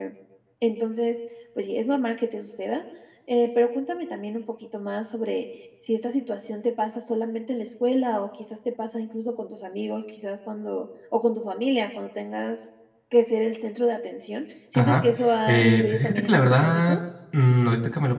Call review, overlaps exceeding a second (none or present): present